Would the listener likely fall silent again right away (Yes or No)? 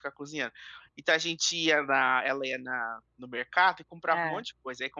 Yes